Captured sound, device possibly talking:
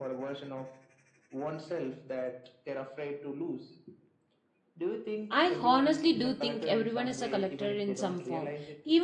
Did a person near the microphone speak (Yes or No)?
Yes